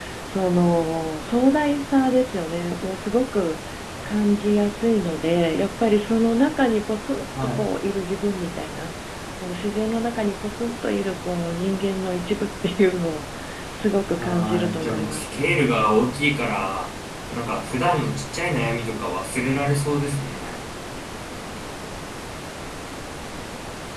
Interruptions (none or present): present